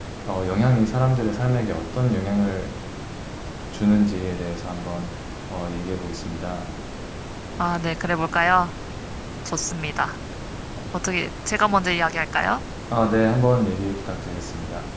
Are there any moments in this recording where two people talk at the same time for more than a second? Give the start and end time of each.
none

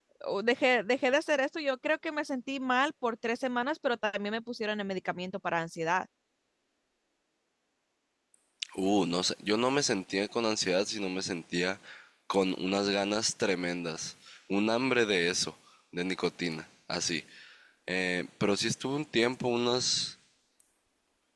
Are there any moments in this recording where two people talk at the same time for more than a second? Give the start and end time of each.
none

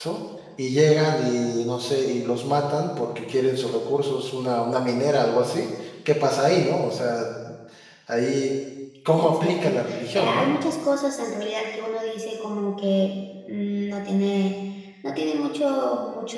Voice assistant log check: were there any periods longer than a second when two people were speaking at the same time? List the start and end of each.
9.2-10.5

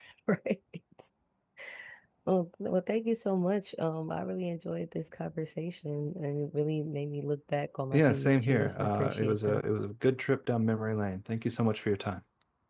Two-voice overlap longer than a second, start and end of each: 7.9-9.6

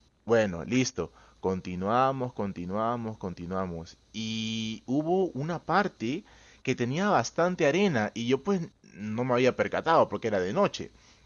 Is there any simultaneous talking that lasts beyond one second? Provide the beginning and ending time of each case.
none

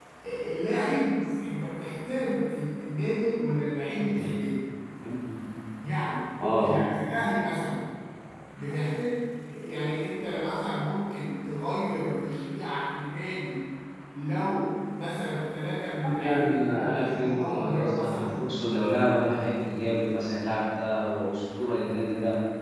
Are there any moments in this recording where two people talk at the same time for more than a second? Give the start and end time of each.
16.1-18.4

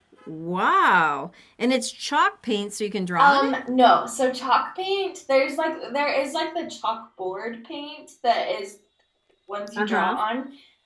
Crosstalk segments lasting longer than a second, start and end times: none

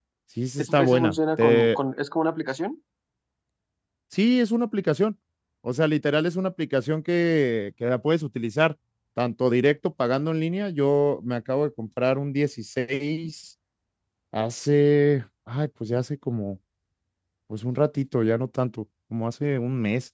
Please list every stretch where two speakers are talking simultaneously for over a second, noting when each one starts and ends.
0.6-1.8

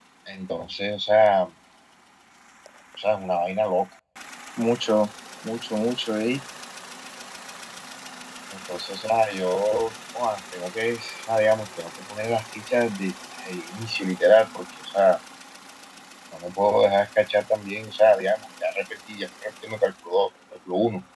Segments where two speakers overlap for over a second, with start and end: none

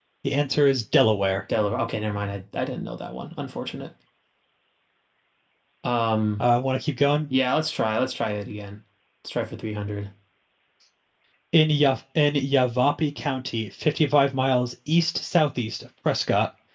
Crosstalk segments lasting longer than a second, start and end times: none

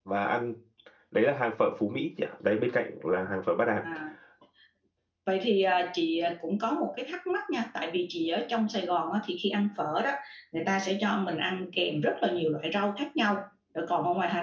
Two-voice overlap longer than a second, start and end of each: none

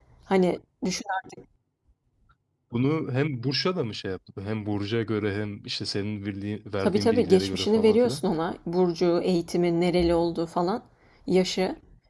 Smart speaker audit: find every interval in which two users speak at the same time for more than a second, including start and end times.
6.8-8.2

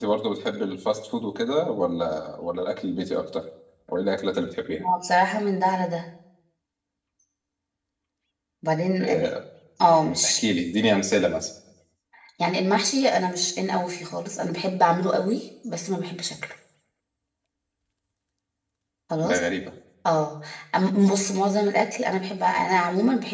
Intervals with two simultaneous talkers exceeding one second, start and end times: none

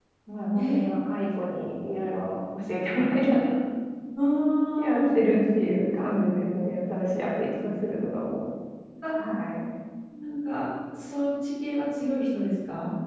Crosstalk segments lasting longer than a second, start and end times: none

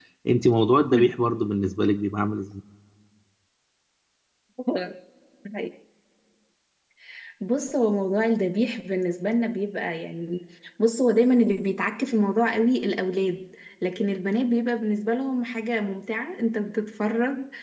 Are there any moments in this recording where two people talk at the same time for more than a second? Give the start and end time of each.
none

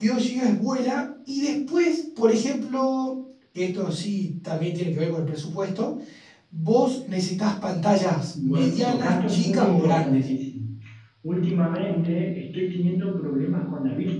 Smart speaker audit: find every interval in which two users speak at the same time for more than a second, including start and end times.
8.4-10.2

